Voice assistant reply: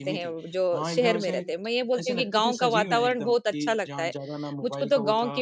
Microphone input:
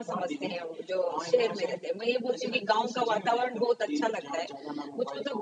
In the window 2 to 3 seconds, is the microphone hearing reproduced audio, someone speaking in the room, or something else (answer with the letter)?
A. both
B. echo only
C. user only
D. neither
B